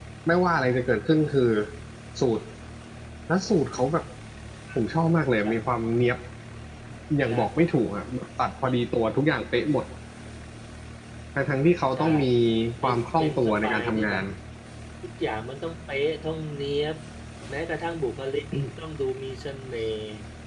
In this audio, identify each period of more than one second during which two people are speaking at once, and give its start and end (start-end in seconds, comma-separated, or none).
12.8-14.2